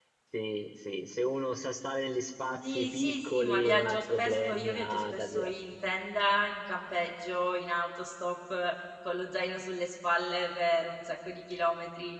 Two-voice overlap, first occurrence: 3 s

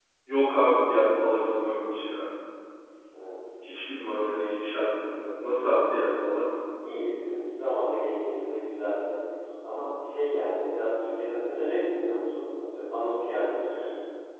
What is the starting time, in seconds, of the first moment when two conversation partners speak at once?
none

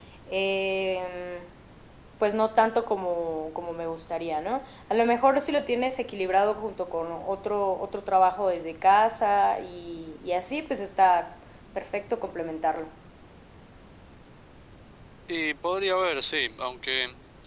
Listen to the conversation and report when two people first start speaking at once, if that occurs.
none

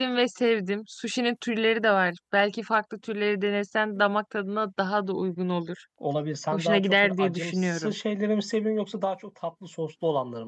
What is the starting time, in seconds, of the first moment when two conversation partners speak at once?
7 s

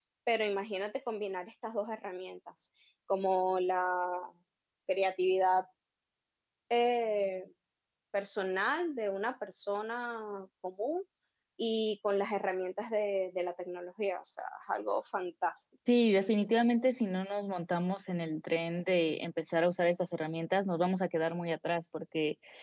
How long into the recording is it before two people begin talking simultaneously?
none

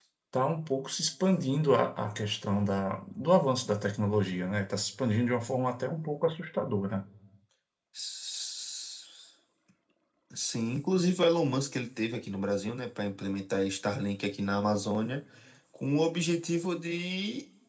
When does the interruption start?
none

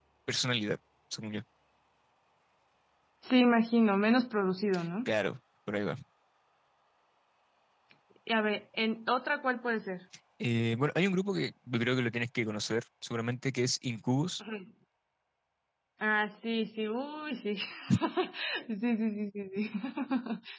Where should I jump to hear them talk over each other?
none

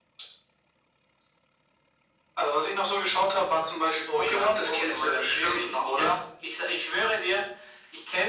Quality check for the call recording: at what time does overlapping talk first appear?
4 s

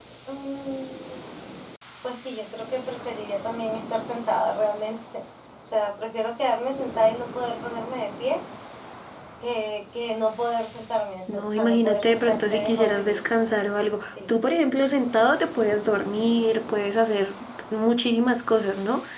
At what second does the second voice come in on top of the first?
11 s

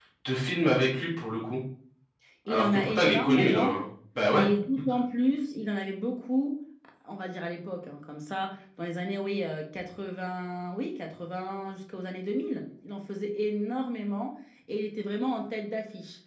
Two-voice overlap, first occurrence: 2 s

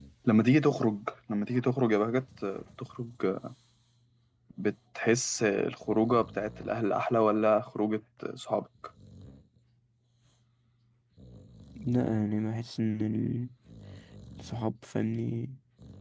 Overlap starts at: none

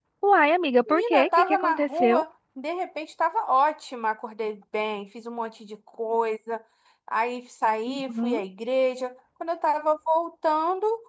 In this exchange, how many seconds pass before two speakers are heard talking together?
1 s

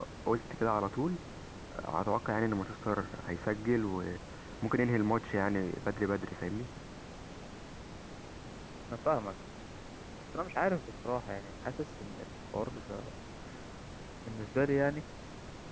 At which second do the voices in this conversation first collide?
none

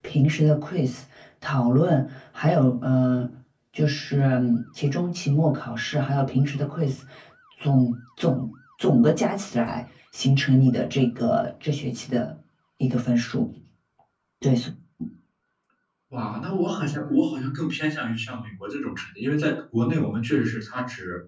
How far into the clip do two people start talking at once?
none

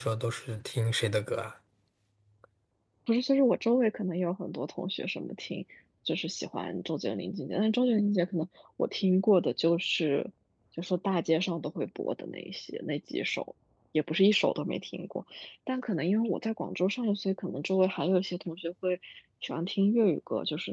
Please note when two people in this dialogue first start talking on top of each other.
none

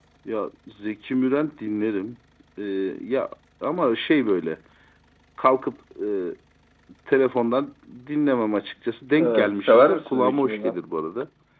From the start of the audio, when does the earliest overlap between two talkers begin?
9 s

